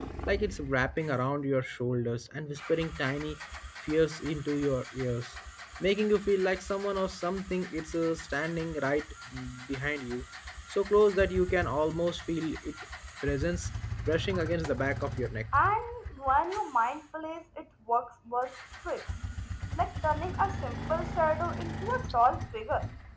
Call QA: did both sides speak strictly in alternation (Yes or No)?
Yes